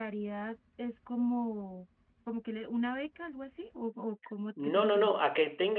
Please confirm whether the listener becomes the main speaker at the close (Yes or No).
Yes